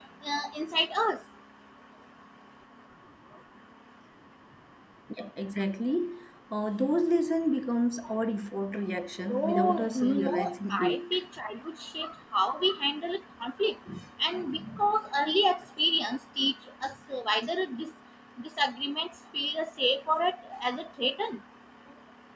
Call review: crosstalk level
present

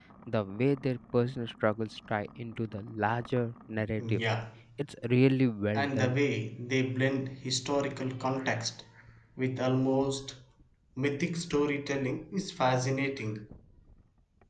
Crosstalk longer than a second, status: none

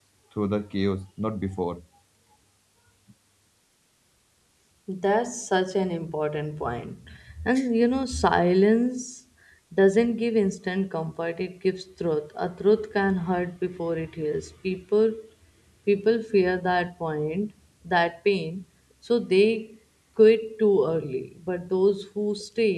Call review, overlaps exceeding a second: none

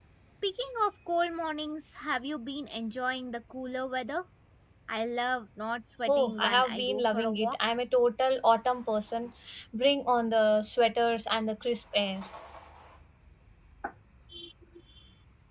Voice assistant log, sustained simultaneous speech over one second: present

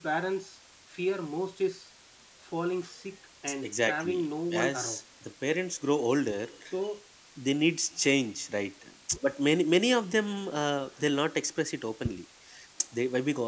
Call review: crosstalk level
present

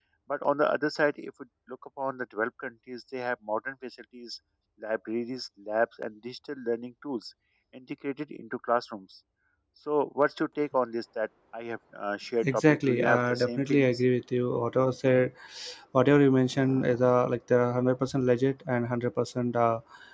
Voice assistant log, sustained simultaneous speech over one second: present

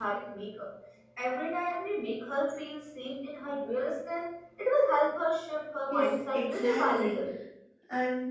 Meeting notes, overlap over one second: present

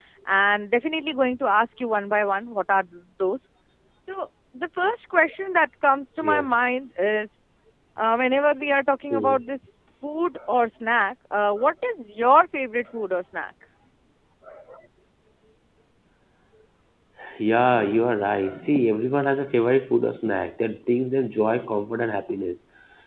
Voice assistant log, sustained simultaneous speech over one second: none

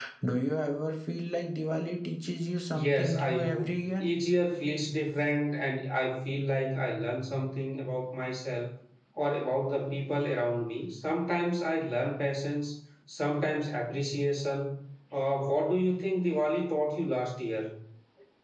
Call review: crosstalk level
present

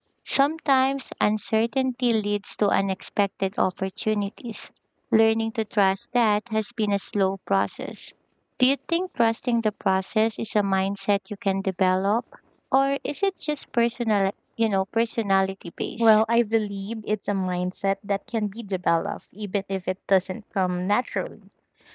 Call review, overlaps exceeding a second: none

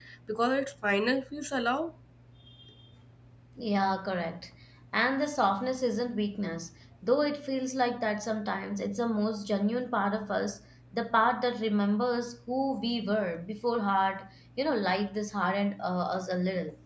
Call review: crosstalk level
none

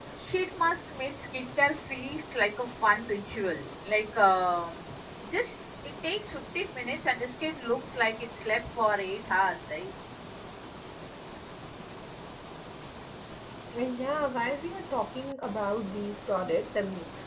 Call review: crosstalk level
none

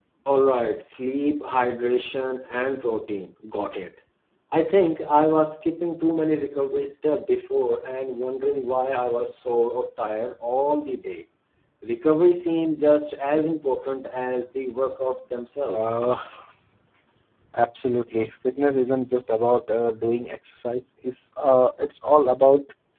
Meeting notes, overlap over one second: none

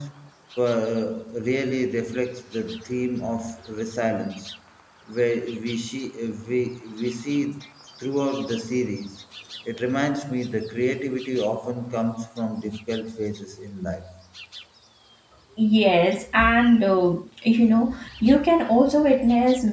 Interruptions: none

